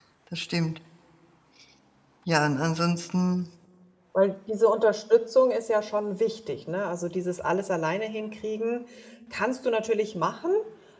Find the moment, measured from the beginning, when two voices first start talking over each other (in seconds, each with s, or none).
none